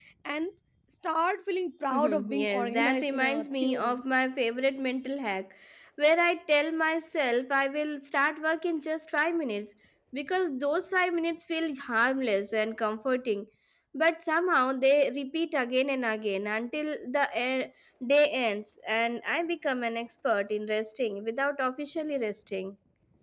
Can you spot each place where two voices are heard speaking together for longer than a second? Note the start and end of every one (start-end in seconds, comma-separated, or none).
1.9-4.0